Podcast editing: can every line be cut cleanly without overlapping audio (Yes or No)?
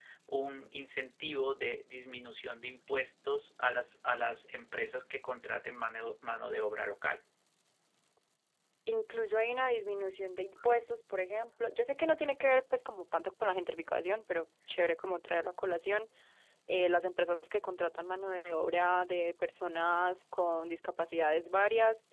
Yes